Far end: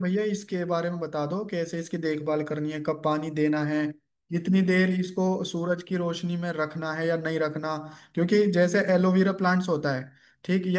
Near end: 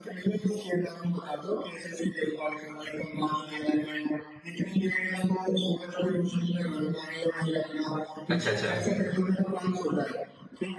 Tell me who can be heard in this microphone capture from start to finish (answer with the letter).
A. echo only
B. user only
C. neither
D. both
D